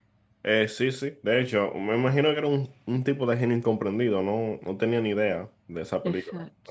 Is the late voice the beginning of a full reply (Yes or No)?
Yes